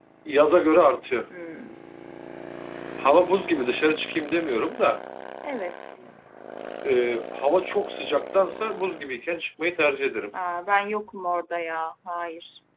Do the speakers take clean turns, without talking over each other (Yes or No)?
Yes